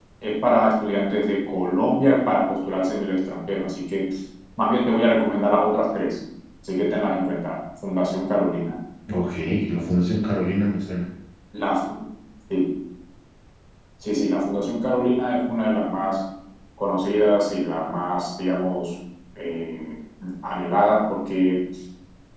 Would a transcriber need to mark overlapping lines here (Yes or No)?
No